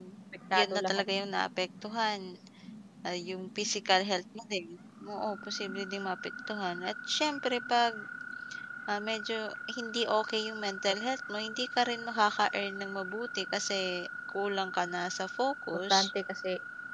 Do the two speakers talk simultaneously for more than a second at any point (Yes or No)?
No